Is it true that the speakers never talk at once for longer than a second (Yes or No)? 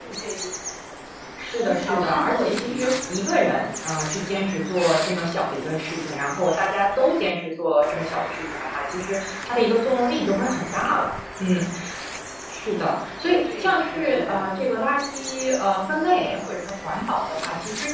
No